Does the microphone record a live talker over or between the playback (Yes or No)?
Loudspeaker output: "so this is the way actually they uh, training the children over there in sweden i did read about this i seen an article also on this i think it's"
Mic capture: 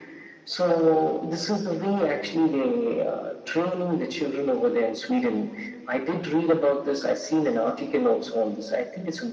No